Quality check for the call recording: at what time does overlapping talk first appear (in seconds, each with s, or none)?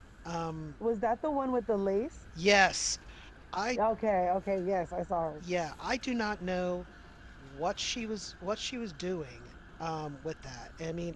none